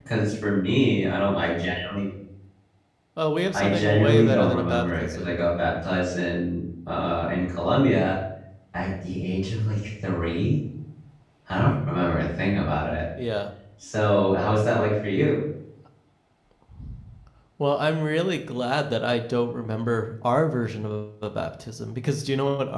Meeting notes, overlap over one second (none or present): present